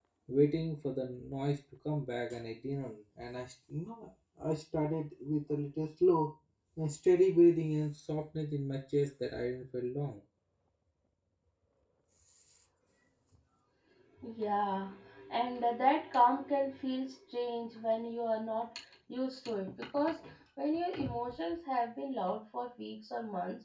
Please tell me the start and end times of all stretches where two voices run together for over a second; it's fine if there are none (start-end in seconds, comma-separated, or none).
none